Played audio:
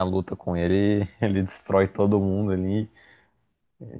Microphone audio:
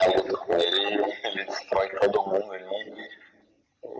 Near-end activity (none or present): none